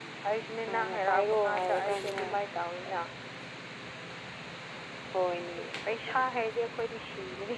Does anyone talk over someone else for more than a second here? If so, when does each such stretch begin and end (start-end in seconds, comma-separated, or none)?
0.7-2.2